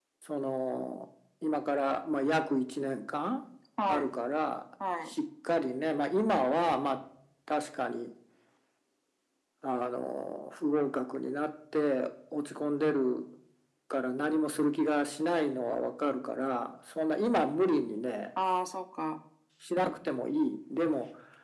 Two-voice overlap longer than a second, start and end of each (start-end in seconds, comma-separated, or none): none